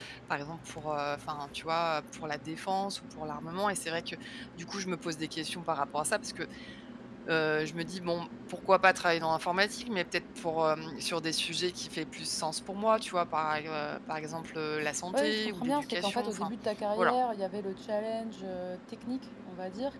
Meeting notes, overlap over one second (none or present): present